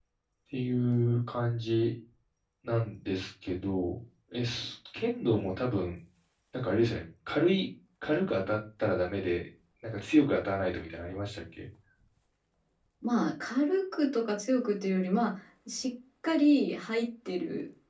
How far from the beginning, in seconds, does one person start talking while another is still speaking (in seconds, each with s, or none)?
none